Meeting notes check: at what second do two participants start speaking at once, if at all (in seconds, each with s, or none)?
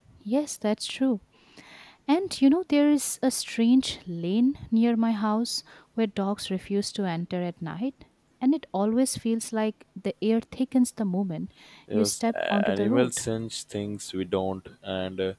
11.9 s